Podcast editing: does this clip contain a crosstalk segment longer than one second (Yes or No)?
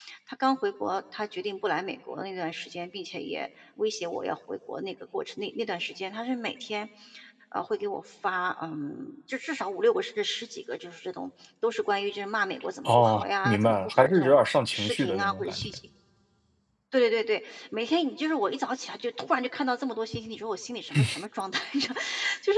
Yes